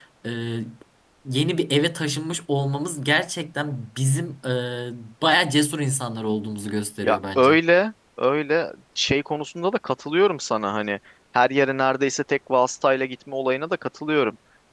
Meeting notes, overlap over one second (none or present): none